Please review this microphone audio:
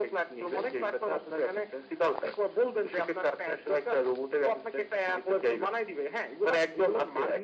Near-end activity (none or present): none